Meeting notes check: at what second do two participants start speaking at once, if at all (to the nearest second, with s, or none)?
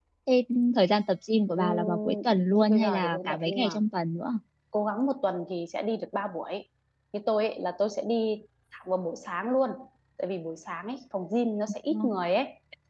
2 s